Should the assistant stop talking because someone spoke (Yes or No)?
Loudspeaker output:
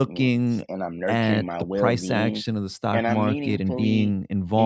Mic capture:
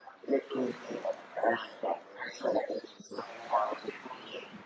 No